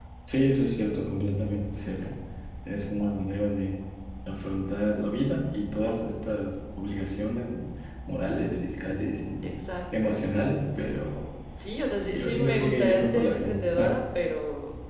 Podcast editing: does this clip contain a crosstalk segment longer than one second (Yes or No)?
Yes